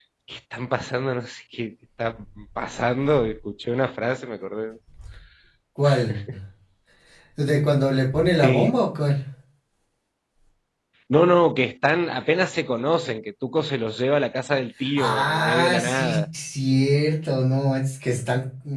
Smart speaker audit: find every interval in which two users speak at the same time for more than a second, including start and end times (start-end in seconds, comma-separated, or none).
15.0-16.2